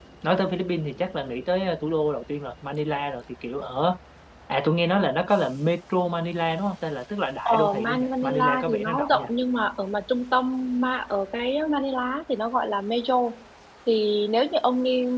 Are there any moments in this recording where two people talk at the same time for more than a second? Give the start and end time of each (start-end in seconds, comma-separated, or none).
7.5-9.3